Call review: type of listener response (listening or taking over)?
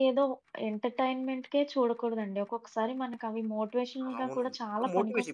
taking over